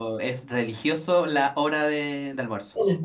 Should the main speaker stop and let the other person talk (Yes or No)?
No